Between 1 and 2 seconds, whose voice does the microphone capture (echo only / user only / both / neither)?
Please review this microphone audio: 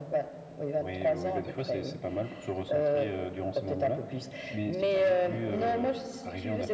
echo only